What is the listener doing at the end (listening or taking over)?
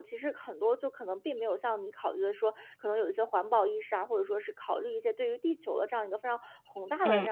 listening